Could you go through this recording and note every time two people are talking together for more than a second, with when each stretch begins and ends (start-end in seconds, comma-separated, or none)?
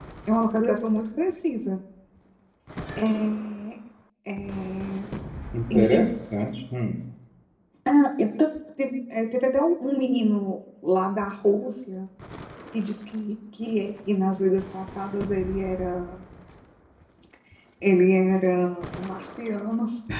none